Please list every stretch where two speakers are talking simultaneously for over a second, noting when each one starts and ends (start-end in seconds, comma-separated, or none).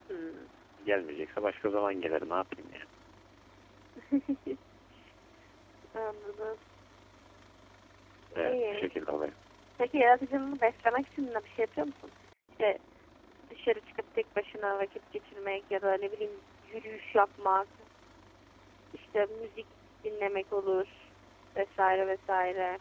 none